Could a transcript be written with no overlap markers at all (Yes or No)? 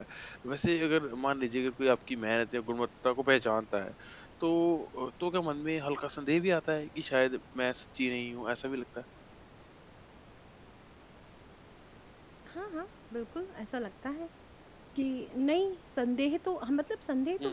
Yes